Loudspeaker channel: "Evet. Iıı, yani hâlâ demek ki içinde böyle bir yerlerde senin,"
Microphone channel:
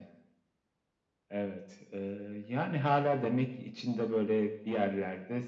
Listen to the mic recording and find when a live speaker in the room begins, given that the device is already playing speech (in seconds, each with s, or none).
none